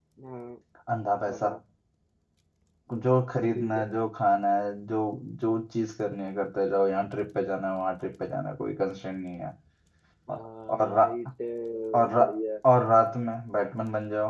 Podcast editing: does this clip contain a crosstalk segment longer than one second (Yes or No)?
No